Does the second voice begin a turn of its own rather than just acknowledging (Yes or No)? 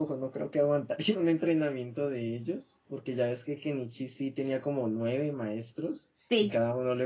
No